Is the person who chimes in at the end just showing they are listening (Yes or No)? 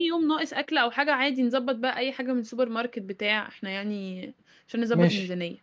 No